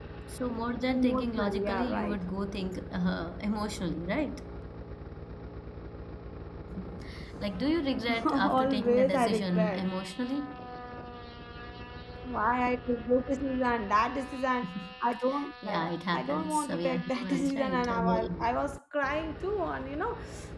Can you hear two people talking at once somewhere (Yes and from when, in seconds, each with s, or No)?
Yes, from 0.9 s